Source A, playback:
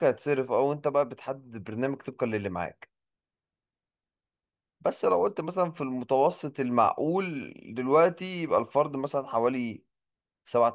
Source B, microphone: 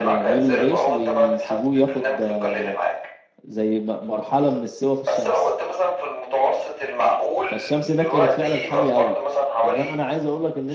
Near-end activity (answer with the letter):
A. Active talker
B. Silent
A